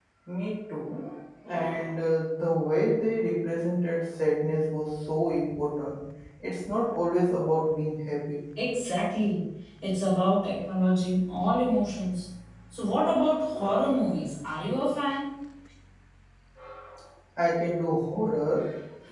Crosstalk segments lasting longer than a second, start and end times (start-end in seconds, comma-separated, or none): none